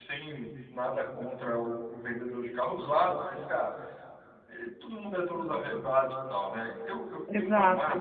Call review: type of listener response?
taking over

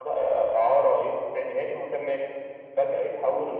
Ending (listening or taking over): listening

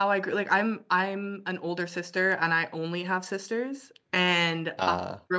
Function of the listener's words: listening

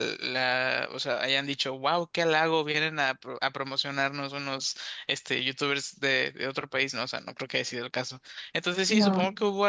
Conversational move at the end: listening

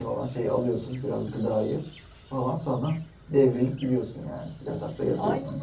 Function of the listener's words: taking over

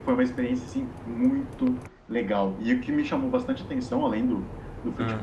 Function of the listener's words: listening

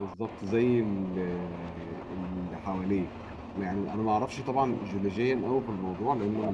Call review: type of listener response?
listening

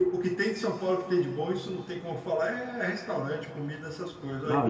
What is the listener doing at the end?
taking over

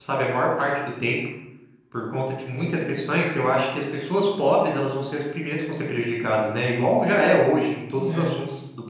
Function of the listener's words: listening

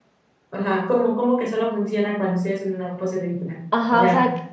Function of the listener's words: taking over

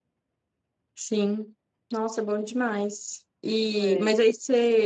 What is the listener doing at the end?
listening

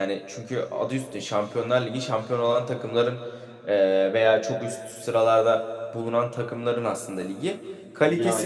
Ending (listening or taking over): listening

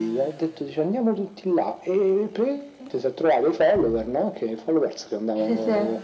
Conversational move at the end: listening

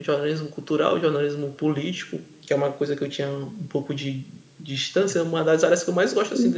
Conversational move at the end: listening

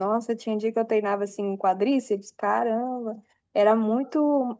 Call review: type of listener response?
listening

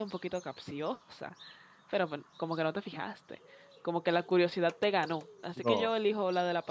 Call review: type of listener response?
listening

